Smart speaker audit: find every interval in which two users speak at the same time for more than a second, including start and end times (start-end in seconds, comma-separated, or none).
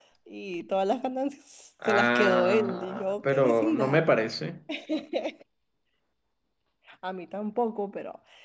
1.8-4.0